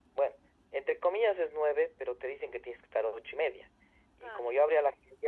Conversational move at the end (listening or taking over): listening